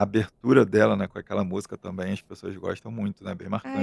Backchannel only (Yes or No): No